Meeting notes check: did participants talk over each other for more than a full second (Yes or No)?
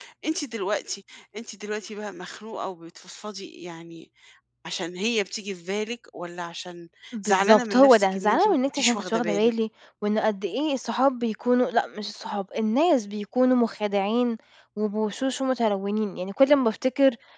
Yes